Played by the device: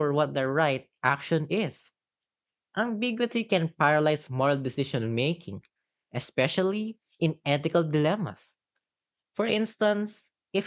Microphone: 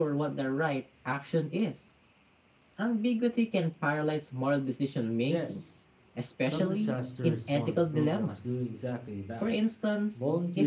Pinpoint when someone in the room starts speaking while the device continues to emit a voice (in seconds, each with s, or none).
5.2 s